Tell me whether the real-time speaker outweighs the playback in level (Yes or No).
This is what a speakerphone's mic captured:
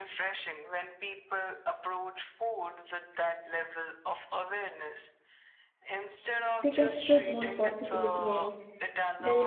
Yes